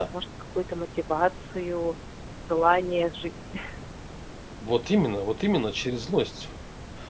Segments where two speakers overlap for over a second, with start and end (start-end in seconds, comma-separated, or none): none